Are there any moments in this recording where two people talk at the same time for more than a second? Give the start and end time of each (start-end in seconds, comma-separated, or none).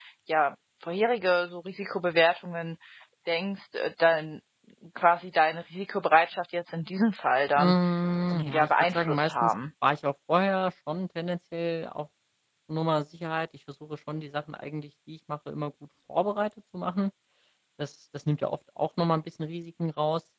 8.3-9.5